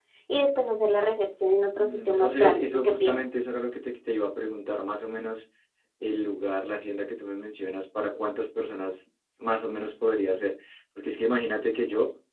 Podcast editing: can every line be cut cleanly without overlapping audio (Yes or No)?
No